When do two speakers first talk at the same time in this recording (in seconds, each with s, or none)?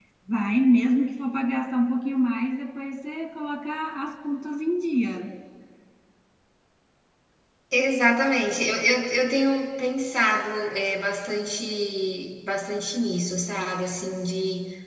none